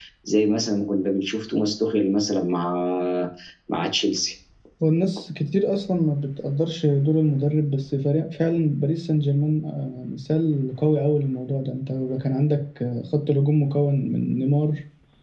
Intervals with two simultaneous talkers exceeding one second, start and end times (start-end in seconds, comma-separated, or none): none